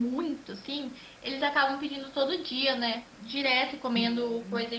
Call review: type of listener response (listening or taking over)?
listening